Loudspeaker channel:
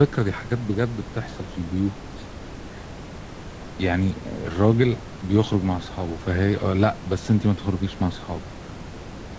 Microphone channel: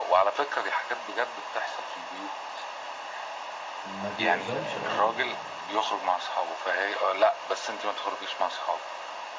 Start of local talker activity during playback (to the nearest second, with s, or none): 4 s